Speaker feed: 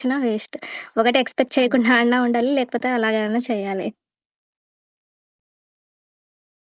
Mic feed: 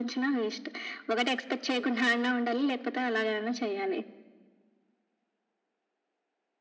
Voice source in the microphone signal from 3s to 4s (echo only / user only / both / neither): echo only